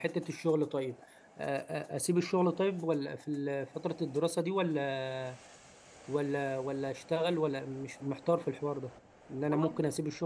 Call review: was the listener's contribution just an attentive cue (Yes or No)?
Yes